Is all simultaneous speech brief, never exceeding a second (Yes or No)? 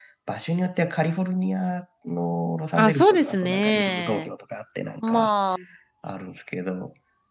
No